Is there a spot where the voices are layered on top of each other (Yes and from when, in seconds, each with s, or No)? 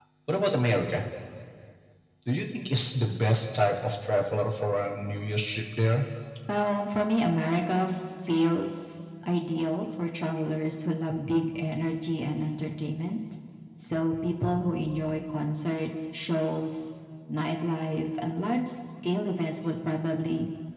No